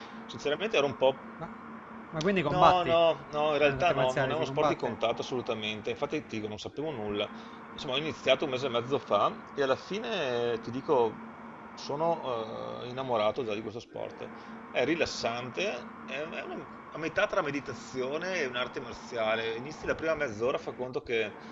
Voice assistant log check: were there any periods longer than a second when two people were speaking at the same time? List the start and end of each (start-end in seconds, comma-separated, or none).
3.6-4.9